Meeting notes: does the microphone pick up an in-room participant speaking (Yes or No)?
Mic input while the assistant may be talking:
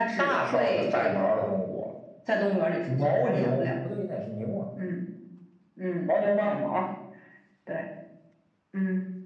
No